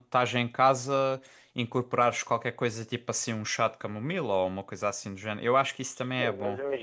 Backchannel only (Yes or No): No